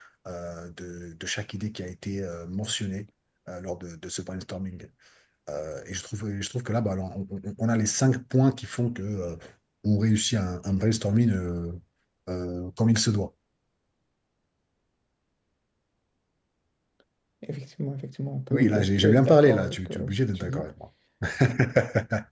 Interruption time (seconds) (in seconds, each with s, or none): 18.5 s